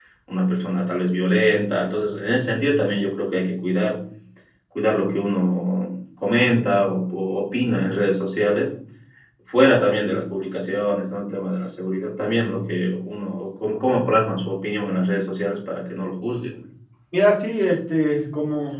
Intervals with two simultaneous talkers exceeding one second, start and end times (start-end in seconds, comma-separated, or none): none